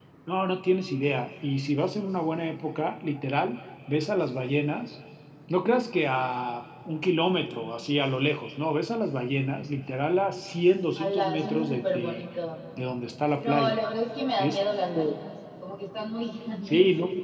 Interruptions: present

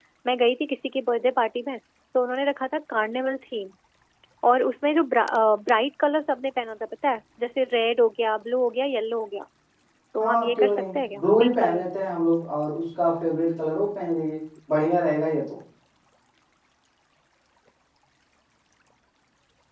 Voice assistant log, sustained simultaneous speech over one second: present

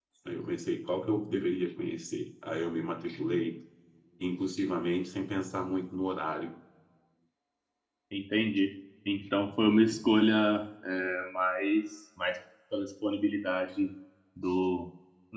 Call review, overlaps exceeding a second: none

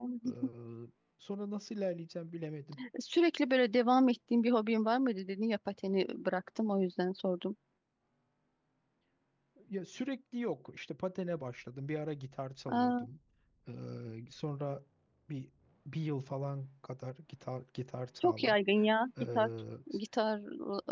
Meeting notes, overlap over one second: none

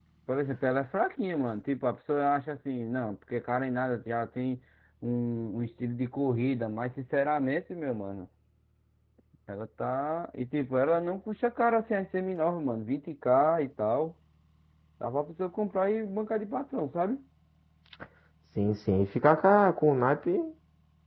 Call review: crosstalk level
none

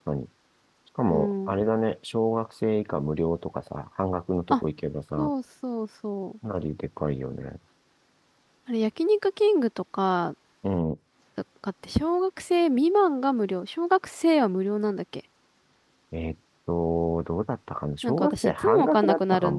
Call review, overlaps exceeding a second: present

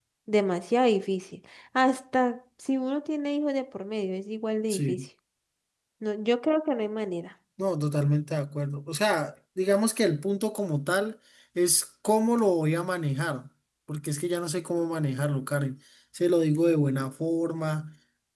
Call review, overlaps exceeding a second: none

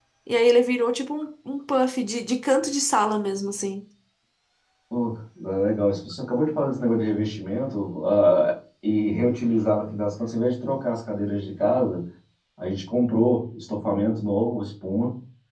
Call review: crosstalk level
none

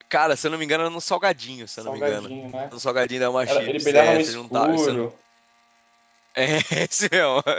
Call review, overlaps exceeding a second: present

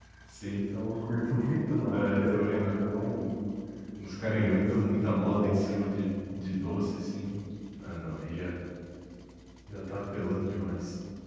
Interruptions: present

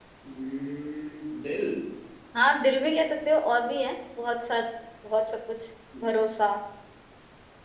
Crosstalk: none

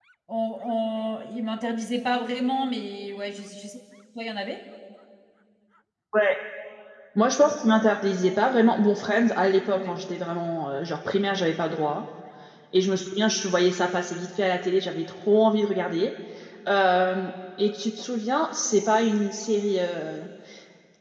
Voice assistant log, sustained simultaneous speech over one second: none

